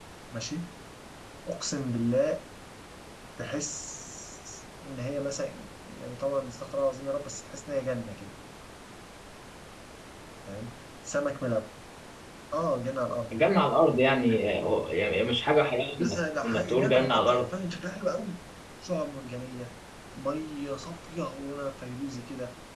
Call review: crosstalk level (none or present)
present